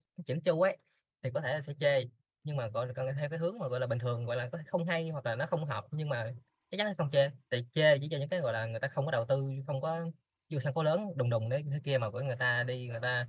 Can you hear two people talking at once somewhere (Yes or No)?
No